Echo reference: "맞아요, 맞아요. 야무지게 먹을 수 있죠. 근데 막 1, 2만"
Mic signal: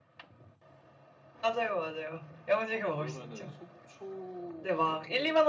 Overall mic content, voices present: both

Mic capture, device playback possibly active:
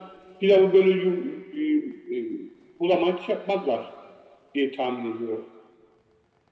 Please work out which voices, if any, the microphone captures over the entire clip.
echo only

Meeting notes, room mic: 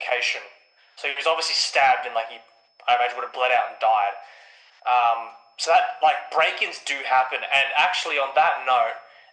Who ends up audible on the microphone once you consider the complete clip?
echo only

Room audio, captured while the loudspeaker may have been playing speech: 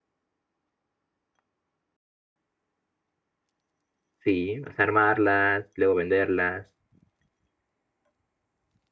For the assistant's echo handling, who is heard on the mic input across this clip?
user only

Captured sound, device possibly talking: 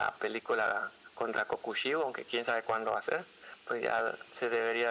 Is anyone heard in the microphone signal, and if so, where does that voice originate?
echo only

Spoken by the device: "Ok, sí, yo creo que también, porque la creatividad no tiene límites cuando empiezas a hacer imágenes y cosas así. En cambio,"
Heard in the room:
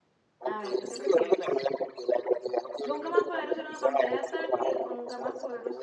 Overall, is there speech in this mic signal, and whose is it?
both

